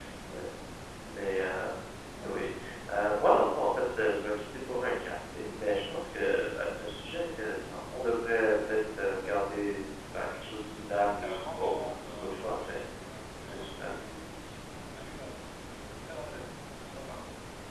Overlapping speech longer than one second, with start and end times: 11.0-12.8

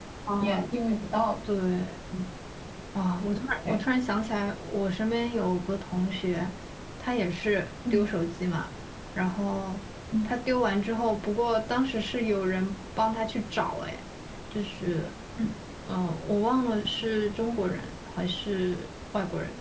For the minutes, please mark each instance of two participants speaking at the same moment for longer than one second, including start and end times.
none

